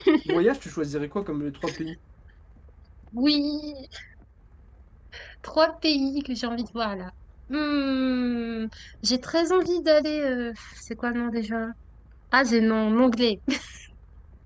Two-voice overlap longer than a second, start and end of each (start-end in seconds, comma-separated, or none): none